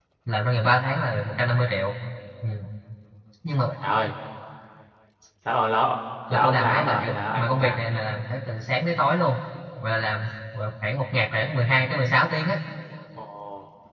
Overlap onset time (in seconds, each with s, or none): 6.3 s